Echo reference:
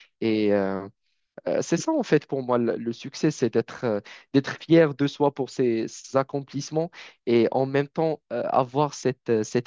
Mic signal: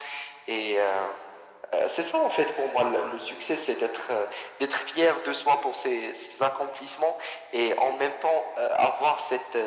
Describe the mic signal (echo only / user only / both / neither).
echo only